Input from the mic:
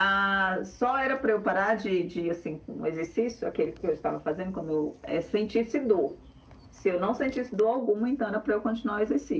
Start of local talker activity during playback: none

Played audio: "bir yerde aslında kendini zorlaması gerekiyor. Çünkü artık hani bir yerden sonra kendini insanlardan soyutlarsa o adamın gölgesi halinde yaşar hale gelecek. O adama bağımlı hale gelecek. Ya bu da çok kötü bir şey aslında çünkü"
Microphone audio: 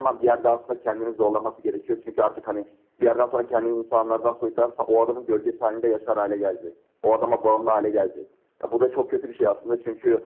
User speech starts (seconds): none

